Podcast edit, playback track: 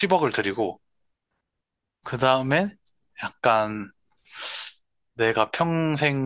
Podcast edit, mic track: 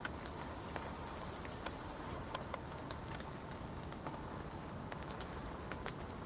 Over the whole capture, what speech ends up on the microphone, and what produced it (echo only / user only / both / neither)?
neither